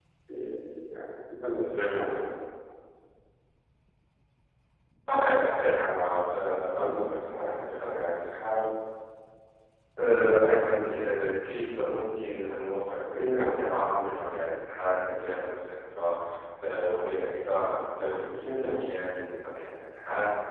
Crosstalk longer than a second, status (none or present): none